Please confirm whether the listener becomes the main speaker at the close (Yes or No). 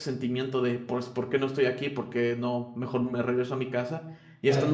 No